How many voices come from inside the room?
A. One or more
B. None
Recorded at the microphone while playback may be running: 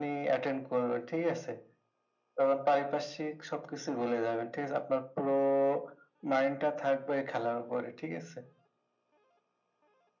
B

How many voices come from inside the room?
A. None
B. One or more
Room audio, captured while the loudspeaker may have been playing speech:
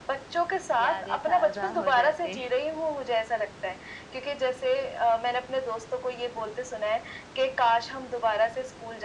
B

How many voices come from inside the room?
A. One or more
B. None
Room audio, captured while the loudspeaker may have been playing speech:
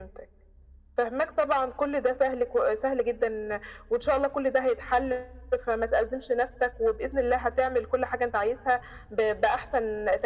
B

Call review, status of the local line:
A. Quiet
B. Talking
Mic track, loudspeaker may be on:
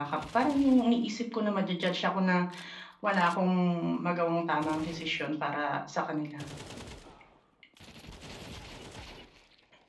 A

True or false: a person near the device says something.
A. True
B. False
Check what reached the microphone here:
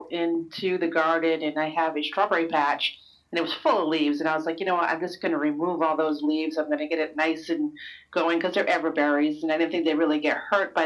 B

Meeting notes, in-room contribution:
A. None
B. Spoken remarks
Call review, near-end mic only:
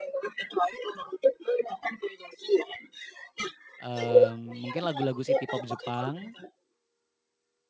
B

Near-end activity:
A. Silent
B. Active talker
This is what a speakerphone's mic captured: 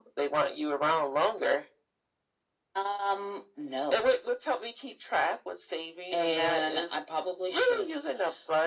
A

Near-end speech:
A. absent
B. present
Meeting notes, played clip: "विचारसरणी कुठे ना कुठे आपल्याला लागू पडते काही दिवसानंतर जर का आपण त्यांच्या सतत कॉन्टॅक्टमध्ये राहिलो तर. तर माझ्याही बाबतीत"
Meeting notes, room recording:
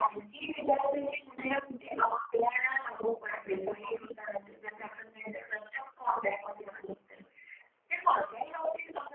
A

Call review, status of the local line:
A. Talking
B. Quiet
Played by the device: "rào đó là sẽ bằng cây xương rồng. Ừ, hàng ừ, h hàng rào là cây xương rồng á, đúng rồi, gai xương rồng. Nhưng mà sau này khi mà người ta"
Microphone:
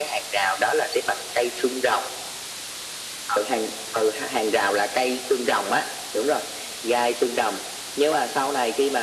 B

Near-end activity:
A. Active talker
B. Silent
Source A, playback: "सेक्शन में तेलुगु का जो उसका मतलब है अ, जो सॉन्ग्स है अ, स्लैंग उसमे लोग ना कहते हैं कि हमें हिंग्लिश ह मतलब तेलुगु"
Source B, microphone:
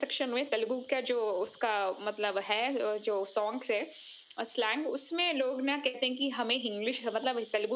B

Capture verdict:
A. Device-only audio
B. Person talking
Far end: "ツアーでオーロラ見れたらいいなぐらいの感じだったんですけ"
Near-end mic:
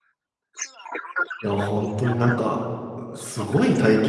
B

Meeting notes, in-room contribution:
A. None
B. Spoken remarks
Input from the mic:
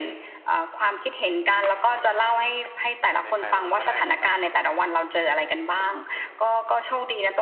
B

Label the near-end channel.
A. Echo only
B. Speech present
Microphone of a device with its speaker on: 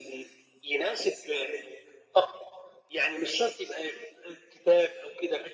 A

